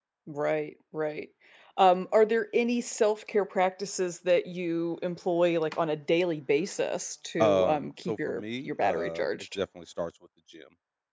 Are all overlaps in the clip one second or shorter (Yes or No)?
No